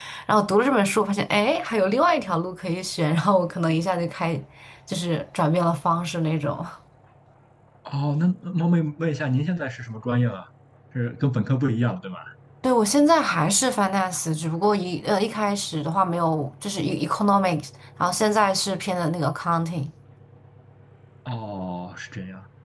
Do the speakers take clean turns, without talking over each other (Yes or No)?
Yes